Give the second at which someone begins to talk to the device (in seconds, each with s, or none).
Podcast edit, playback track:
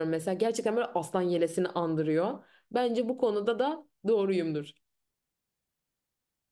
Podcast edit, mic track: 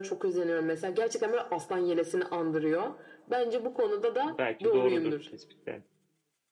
4.2 s